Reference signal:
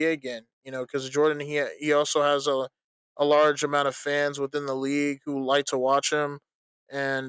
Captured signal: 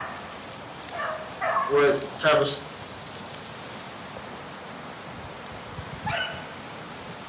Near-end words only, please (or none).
what type of